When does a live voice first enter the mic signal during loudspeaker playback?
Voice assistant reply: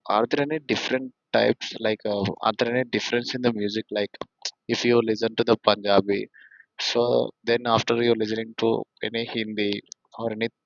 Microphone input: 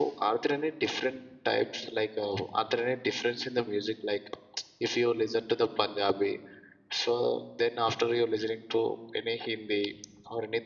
none

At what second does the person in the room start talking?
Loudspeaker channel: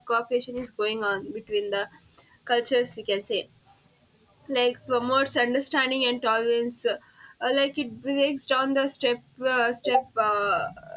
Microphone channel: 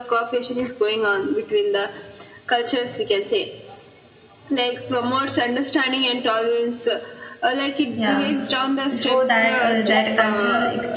7.9 s

